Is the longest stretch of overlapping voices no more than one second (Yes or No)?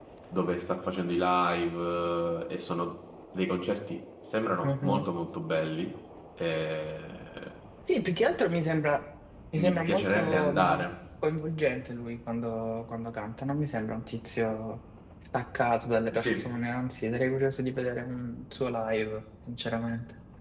No